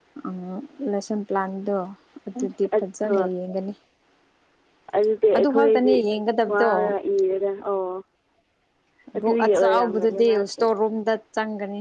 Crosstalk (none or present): present